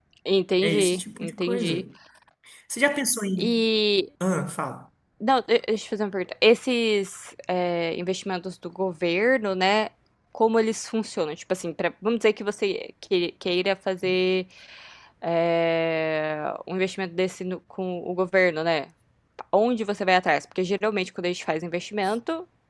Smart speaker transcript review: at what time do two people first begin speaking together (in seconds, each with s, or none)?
0.6 s